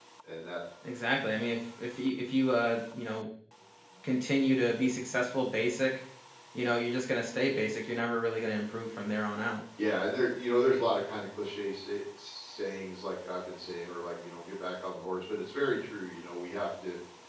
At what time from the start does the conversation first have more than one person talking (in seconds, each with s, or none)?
none